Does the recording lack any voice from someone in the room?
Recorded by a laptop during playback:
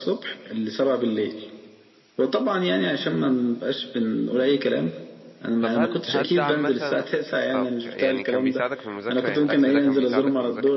No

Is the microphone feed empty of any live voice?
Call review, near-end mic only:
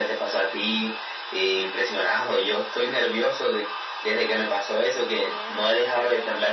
No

